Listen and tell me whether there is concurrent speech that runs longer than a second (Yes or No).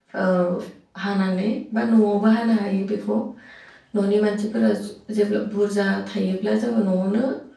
No